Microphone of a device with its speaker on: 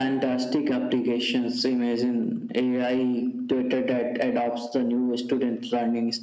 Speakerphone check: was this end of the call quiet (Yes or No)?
Yes